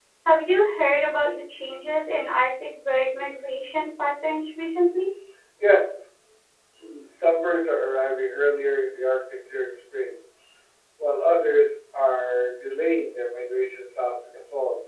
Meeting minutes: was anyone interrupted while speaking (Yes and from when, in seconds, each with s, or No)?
No